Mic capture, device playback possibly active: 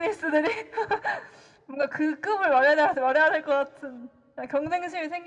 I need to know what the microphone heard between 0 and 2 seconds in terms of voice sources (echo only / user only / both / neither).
echo only